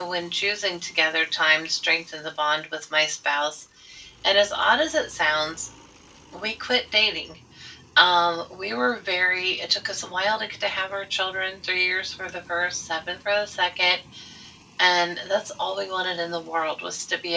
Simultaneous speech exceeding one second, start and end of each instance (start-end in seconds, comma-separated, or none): none